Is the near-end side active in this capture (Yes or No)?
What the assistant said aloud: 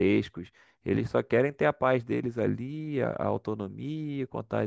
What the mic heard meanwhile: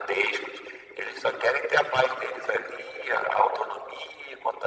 No